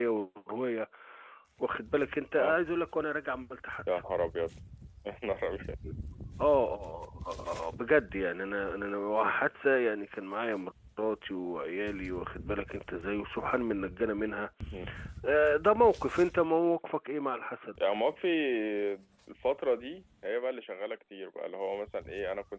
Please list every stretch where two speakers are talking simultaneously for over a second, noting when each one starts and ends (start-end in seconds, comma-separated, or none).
none